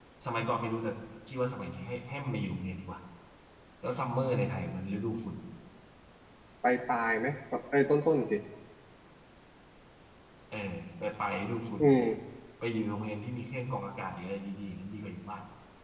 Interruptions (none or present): none